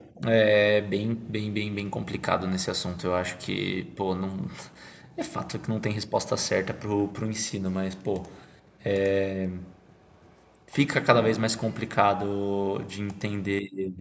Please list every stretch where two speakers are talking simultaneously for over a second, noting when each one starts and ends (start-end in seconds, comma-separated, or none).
none